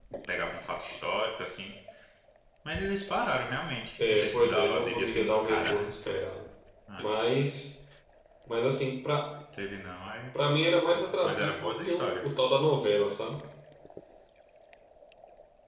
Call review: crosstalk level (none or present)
present